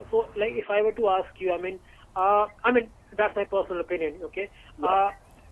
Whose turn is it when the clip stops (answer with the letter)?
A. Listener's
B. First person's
B